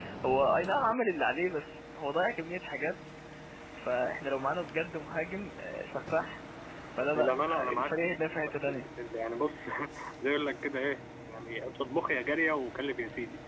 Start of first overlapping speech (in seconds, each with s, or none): 7.1 s